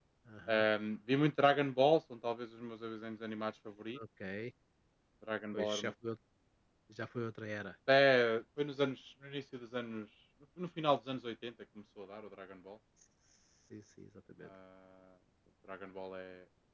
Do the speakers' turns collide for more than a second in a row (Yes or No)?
No